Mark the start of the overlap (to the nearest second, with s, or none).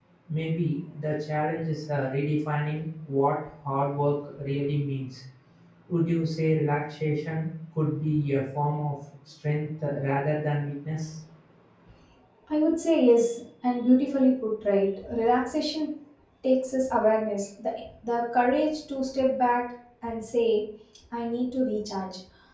none